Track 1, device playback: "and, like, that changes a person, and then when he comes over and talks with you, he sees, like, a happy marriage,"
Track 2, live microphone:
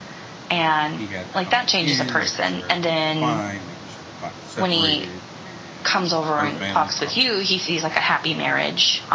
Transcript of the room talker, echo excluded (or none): he had to come back in, making sure everything was fine, making sure everybody was separated. And her family popped